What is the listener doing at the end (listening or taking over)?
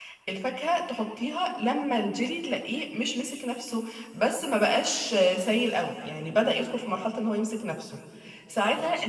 listening